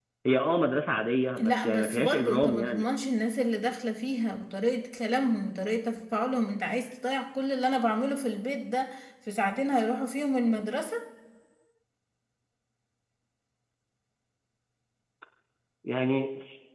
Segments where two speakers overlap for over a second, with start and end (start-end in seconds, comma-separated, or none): 1.4-2.8